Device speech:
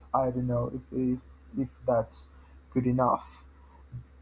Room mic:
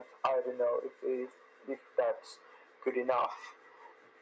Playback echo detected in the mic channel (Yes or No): Yes